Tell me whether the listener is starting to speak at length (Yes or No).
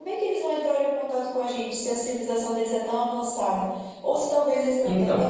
No